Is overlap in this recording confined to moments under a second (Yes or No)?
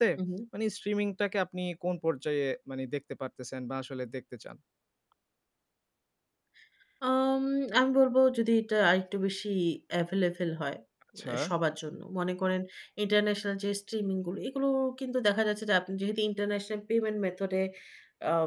Yes